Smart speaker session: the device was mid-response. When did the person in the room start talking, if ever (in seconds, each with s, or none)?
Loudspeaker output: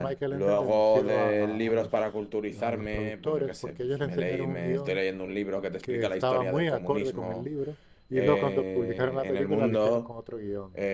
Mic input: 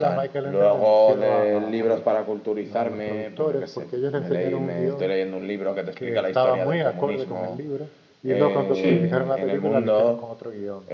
8.7 s